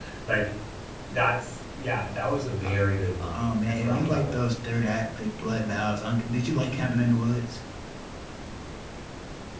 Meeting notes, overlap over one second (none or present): present